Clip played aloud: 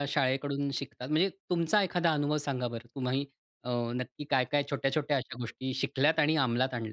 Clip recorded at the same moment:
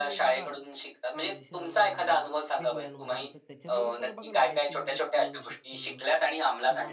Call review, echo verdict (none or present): present